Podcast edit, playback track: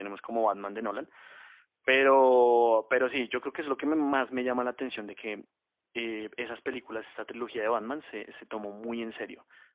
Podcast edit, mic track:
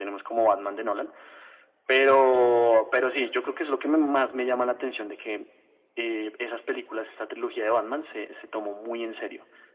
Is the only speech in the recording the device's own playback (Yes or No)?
Yes